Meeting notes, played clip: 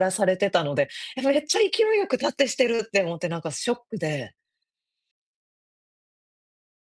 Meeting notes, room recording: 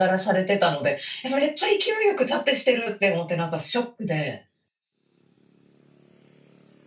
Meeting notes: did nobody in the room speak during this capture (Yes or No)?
Yes